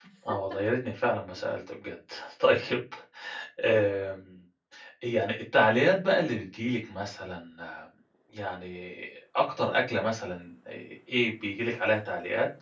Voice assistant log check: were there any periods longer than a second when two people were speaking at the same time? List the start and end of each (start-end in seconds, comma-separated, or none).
none